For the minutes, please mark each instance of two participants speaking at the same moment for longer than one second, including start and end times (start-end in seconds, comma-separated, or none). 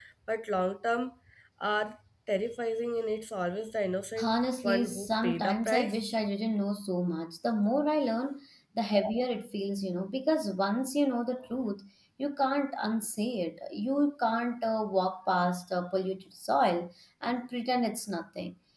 4.2-6.0